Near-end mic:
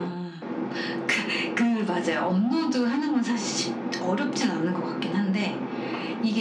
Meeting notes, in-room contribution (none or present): none